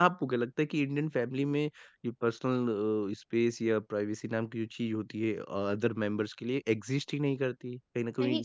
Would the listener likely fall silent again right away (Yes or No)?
Yes